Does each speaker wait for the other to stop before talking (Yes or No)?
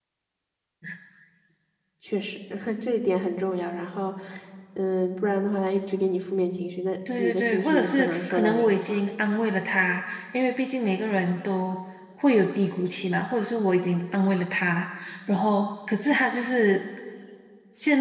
No